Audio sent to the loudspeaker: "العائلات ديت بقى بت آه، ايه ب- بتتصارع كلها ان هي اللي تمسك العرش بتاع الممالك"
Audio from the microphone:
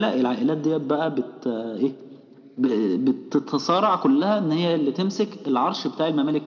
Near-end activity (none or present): none